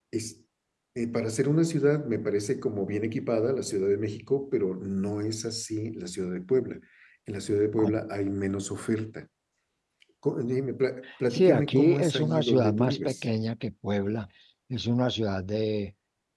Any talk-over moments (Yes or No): Yes